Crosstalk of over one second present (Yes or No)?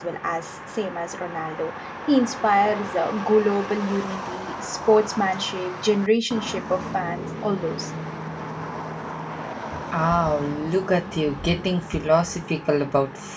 No